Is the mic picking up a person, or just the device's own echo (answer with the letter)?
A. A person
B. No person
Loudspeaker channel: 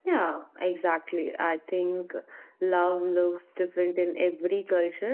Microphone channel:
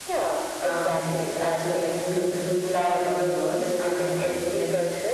A